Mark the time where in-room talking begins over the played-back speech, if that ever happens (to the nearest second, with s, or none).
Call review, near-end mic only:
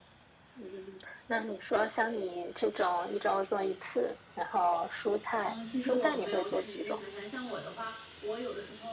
5 s